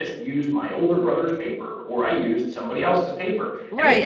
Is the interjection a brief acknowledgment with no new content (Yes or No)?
No